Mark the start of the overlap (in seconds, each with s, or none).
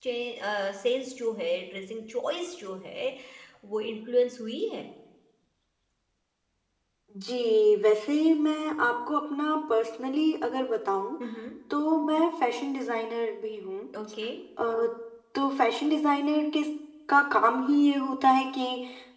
none